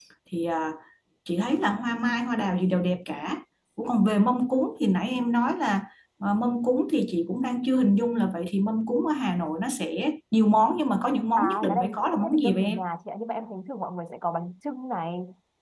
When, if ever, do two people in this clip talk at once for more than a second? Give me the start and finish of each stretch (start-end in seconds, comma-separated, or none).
11.4-12.8